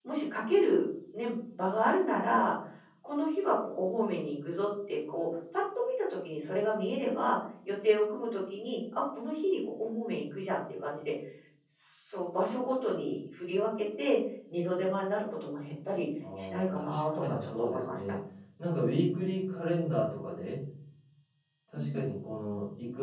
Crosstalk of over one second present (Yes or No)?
Yes